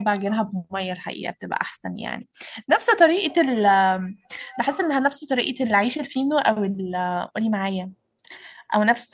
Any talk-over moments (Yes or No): No